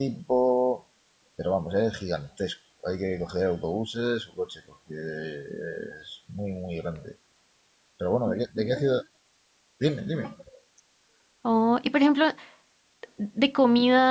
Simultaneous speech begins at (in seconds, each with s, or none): none